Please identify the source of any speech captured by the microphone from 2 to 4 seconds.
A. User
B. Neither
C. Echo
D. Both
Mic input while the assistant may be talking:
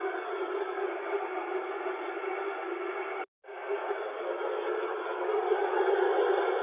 B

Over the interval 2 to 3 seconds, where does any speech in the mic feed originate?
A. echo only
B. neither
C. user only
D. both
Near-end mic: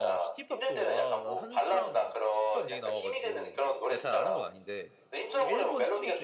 D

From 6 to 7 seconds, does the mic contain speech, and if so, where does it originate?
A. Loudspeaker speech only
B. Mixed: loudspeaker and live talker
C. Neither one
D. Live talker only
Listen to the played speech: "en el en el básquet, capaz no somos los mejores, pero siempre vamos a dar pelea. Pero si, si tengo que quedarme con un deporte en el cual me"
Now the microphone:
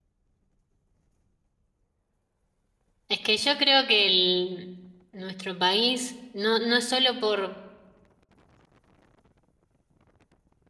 D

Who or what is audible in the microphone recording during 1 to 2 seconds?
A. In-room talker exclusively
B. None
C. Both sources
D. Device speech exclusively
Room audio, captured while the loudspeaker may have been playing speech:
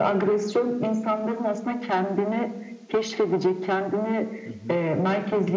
D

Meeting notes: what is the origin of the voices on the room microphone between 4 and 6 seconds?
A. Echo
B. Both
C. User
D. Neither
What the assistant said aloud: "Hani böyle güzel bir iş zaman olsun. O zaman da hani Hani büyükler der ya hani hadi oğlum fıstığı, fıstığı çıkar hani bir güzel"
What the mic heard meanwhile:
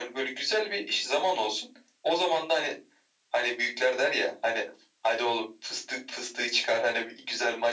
A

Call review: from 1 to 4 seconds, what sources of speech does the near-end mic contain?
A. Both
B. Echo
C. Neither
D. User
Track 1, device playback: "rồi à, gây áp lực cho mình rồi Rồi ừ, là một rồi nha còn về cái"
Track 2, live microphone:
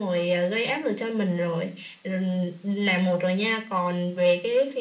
B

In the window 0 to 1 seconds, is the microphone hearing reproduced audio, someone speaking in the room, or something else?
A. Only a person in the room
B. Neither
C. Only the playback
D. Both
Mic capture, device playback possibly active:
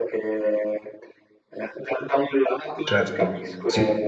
C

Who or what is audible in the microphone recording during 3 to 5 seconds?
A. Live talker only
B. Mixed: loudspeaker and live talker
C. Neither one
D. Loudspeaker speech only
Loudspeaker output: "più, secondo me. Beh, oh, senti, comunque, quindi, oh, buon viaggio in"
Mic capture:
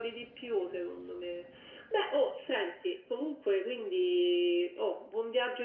D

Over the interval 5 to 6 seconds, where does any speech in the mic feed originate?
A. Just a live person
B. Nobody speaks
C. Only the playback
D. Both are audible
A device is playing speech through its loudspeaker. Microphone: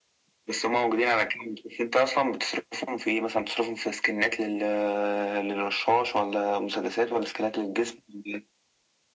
C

